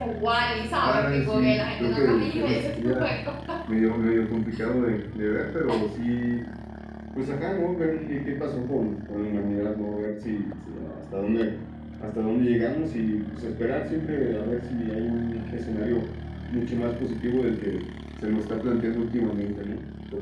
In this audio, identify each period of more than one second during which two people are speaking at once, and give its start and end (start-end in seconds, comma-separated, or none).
0.8-2.9